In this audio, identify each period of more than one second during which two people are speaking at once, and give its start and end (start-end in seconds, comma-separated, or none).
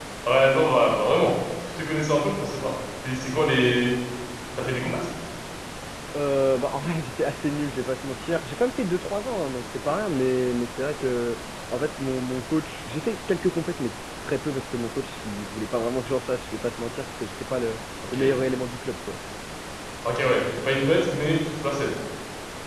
none